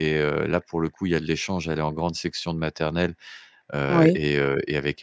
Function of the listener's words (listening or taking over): listening